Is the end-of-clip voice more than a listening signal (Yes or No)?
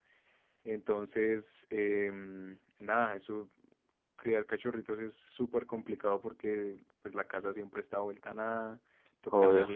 No